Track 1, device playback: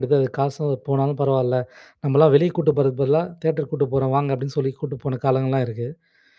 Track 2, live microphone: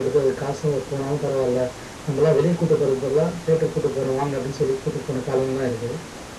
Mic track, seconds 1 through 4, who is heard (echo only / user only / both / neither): echo only